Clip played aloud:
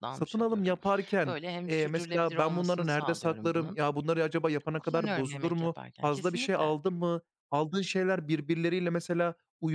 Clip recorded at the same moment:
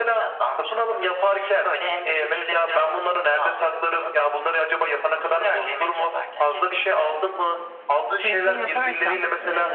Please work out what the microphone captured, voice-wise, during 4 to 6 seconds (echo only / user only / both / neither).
echo only